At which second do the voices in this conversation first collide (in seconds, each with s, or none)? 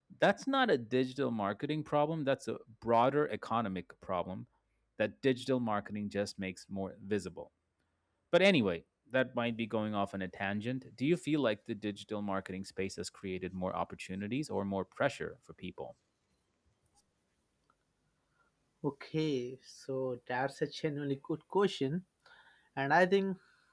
none